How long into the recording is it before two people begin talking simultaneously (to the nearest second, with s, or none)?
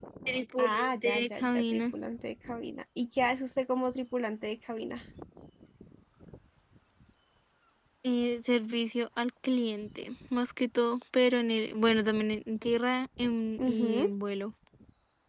1 s